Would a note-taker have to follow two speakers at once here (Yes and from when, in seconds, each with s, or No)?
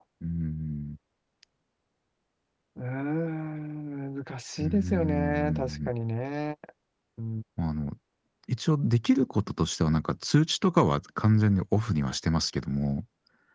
Yes, from 4.6 s